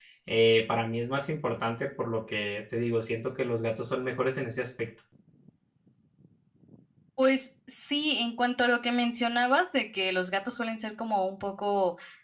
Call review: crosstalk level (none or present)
none